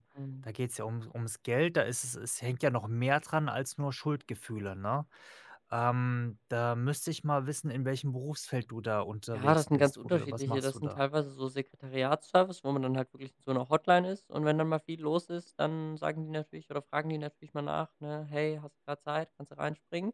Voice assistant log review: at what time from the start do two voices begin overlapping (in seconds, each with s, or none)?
9.3 s